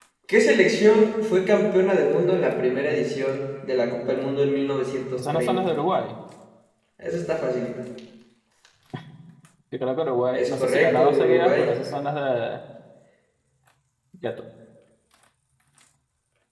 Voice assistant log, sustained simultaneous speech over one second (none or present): present